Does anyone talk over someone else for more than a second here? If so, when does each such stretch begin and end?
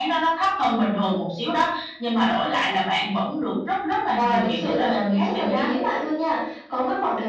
4.2-5.7

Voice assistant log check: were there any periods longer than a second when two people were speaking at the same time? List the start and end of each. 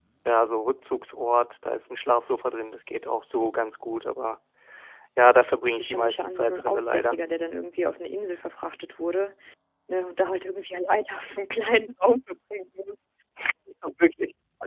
5.7-7.2

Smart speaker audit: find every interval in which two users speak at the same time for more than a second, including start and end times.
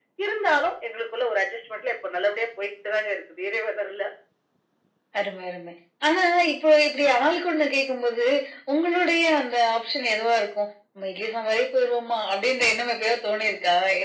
none

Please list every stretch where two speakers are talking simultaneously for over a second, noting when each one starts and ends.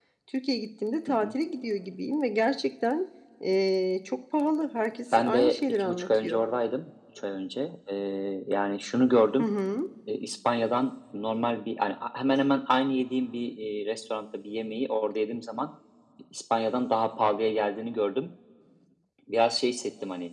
5.1-6.4

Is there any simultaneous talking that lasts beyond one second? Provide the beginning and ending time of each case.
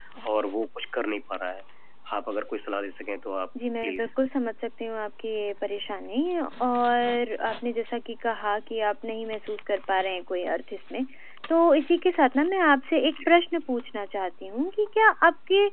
none

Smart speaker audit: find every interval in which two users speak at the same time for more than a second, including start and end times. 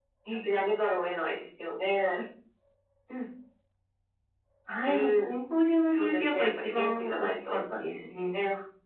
5.9-7.6

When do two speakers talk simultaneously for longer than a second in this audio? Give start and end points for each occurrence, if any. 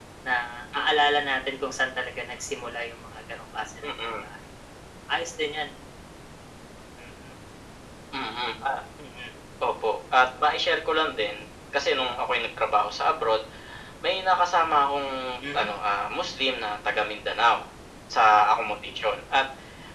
none

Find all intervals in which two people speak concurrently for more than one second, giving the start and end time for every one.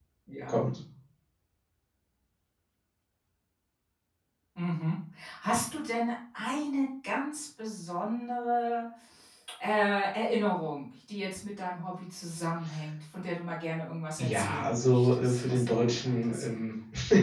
14.2-16.6

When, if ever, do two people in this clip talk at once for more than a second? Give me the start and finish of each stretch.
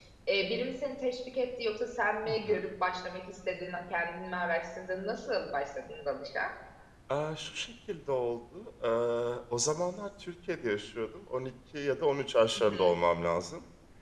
none

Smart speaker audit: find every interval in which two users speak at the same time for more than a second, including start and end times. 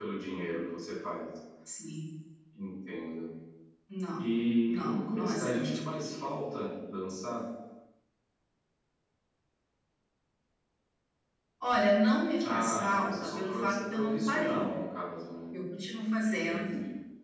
4.7-6.3, 12.5-14.7

